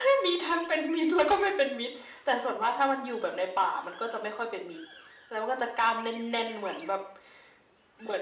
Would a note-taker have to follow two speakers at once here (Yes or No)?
No